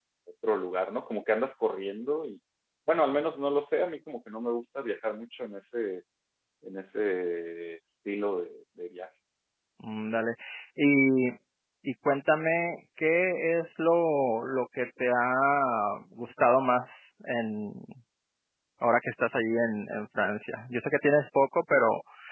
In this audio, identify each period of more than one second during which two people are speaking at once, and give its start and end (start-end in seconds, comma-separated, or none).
none